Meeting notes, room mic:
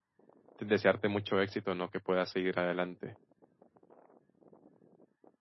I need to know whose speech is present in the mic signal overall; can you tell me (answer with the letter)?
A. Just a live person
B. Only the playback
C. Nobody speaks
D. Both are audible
A